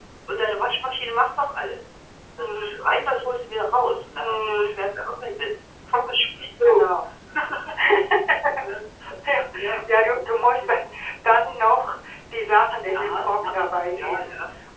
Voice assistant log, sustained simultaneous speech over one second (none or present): none